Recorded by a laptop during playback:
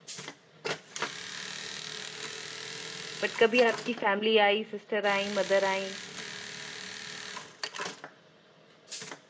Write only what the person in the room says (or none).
बट कभी आपकी फैमिली आई सिस्टर आई मदर आई